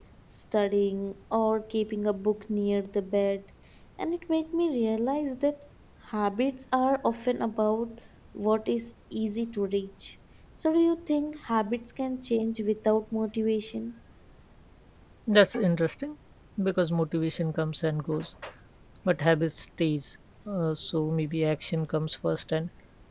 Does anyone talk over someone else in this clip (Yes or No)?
No